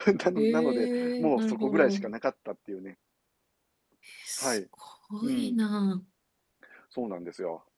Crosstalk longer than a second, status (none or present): present